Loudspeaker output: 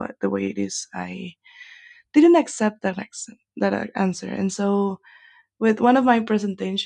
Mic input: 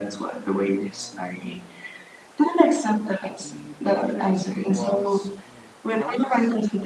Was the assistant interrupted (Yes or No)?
Yes